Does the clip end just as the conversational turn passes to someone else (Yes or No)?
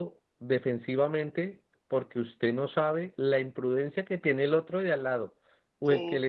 No